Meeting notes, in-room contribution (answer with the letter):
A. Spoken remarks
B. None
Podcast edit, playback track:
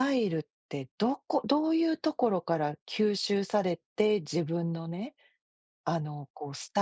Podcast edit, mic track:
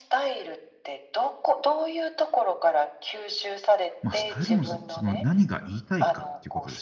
A